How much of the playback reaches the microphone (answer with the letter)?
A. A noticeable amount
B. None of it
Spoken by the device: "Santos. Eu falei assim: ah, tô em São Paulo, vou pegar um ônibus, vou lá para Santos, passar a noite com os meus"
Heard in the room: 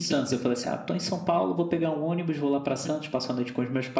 A